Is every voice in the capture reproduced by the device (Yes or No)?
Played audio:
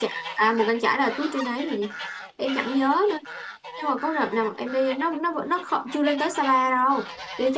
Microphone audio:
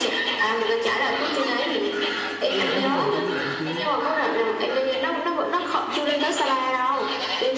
No